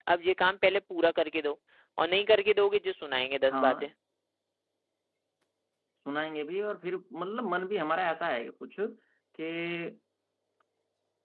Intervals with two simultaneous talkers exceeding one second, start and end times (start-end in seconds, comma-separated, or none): none